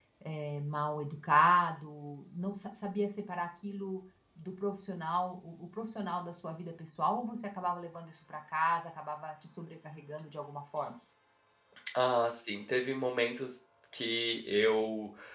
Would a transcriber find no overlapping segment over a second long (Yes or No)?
Yes